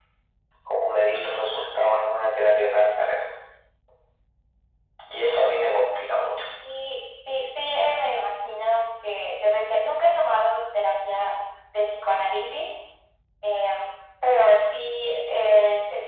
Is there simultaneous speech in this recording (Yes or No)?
No